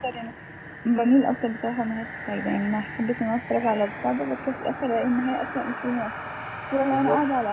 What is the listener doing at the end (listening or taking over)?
listening